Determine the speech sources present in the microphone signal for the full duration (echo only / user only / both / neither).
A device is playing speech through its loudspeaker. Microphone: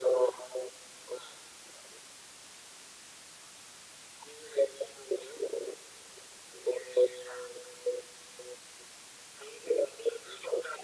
echo only